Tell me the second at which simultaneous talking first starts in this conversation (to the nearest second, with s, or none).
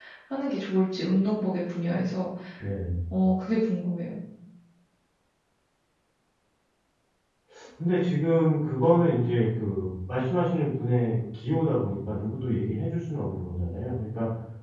none